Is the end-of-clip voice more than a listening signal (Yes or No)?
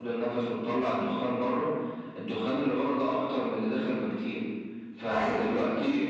No